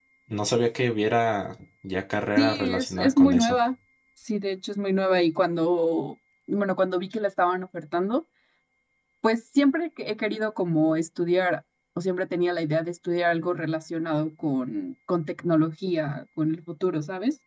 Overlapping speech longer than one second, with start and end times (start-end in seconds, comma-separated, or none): 2.4-3.6